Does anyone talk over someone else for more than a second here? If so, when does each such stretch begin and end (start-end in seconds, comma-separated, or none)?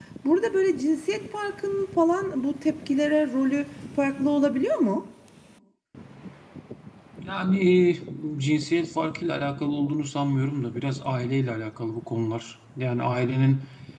none